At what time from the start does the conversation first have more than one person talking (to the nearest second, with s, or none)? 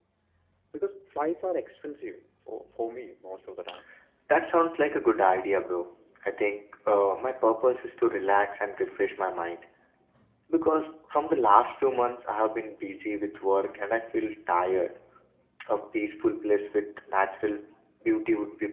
none